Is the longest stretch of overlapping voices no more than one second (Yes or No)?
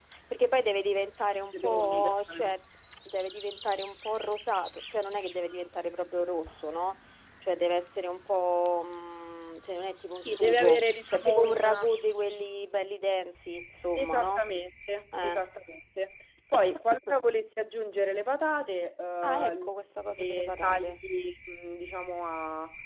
No